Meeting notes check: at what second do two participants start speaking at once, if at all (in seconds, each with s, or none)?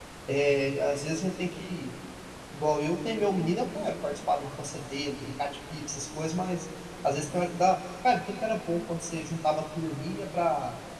none